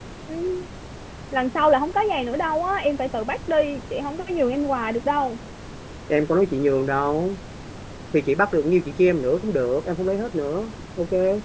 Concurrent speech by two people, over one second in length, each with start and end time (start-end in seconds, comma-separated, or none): none